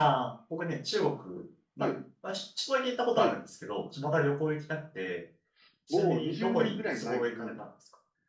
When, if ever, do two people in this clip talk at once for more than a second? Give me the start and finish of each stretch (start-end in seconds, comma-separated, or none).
5.9-7.6